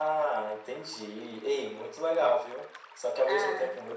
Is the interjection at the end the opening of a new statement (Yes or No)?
No